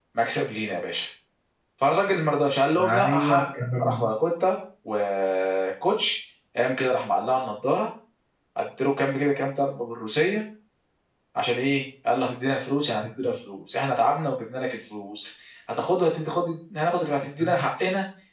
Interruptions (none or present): present